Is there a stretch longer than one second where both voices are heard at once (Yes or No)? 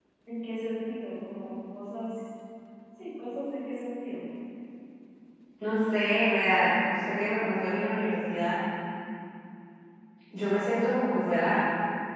No